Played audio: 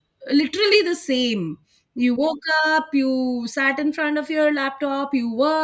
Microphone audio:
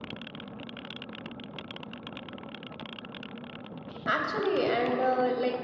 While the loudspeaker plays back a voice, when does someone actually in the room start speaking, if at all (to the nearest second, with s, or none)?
4 s